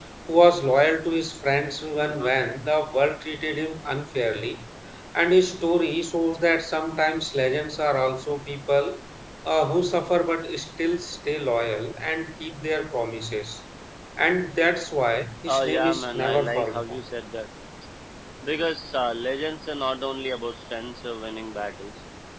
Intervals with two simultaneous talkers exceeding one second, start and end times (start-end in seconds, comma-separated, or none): 15.5-17.1